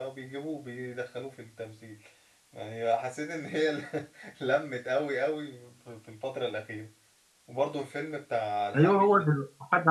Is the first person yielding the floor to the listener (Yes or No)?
Yes